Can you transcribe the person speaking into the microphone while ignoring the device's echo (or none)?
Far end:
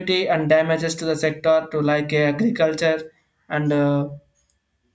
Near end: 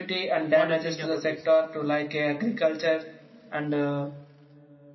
what do you think about this